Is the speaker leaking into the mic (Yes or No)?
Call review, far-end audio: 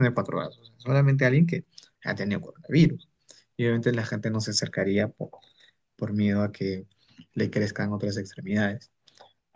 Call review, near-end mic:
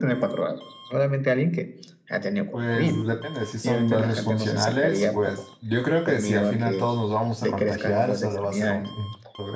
Yes